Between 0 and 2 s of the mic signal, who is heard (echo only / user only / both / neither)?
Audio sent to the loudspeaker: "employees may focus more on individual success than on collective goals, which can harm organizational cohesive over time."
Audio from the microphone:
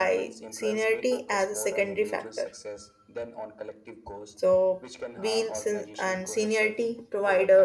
both